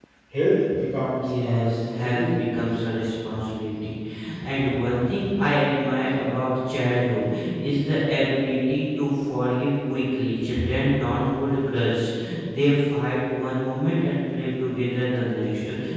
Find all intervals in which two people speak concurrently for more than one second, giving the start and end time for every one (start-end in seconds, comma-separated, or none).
1.1-2.4